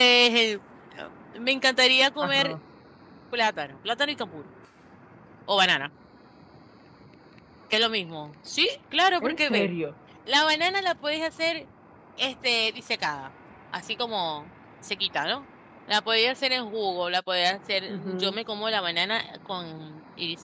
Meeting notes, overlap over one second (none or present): none